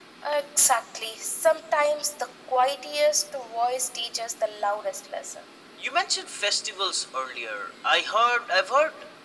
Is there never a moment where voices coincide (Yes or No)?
Yes